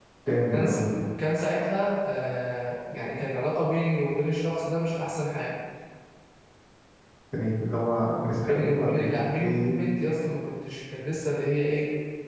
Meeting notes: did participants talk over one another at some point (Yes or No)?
Yes